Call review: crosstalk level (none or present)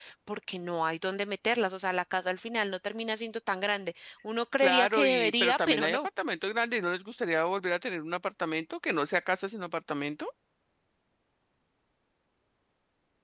present